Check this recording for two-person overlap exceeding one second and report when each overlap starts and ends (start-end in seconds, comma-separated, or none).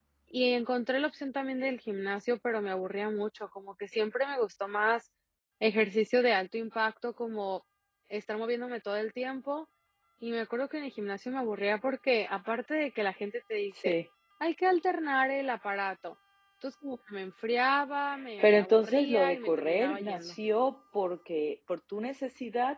18.4-20.4